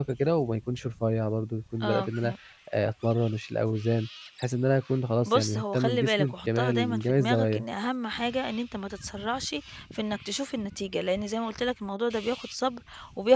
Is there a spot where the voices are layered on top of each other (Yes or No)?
Yes